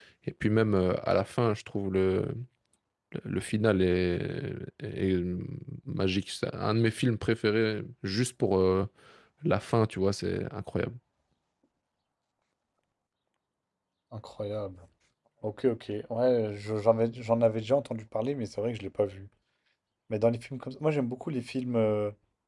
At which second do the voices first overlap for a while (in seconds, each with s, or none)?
none